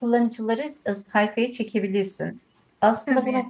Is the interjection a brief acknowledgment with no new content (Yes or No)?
Yes